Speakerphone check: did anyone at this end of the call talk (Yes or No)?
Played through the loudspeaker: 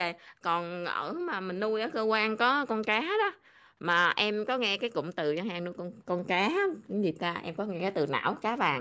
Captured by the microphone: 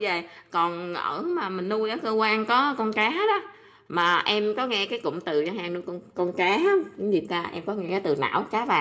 No